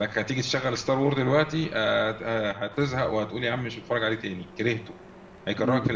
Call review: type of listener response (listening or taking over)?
taking over